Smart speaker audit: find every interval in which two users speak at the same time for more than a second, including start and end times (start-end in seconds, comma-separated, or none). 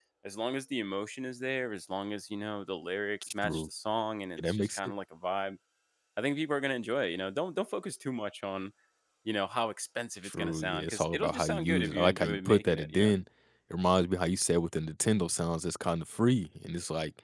10.2-13.1